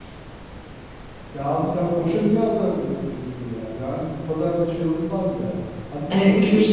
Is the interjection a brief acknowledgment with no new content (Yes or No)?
No